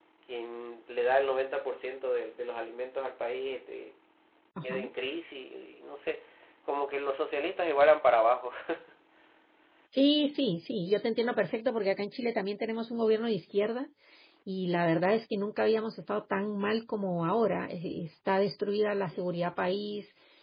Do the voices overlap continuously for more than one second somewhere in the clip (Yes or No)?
No